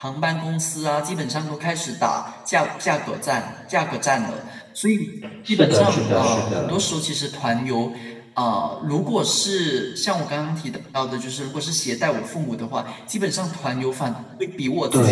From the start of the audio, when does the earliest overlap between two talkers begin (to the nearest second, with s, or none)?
5 s